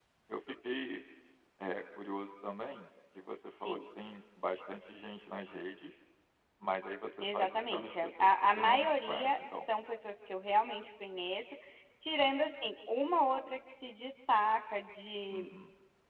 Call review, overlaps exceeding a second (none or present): present